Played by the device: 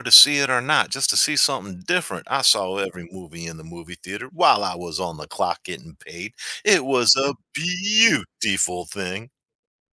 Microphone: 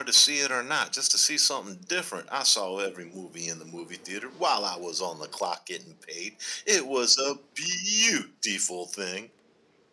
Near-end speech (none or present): none